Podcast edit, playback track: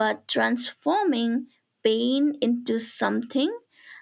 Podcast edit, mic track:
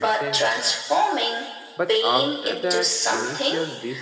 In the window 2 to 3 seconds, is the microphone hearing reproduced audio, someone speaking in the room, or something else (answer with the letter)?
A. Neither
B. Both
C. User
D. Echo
B